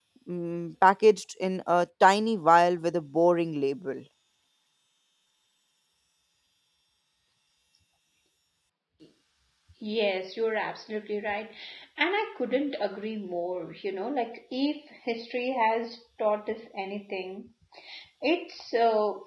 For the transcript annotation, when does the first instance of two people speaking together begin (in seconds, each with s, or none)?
none